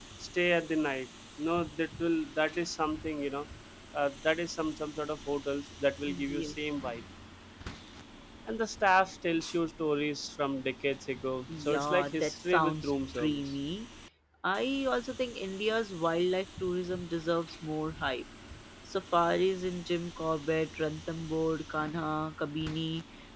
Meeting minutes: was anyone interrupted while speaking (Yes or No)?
Yes